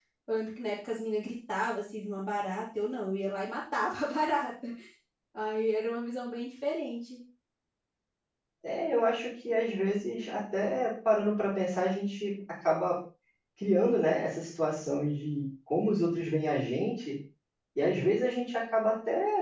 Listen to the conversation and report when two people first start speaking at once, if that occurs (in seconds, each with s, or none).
none